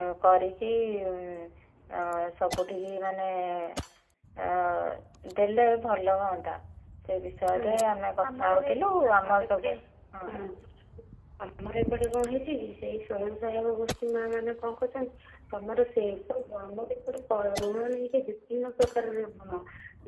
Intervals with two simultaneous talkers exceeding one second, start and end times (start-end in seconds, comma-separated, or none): 8.3-9.7